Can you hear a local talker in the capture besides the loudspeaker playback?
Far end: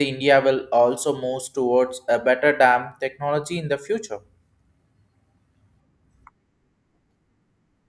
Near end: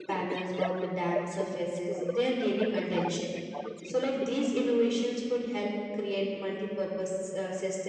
Yes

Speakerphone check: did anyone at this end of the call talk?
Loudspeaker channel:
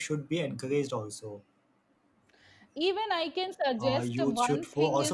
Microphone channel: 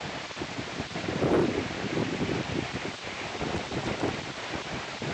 No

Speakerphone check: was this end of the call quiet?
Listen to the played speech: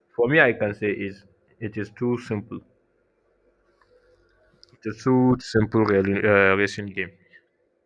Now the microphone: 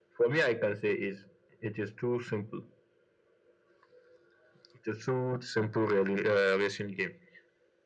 Yes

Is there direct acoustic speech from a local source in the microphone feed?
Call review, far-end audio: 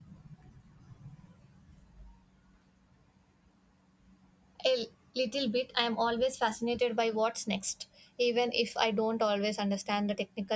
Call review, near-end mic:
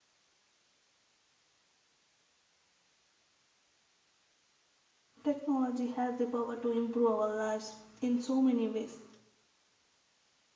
Yes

